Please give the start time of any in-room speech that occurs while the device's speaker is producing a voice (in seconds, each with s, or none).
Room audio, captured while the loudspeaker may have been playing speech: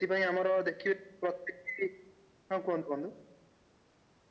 none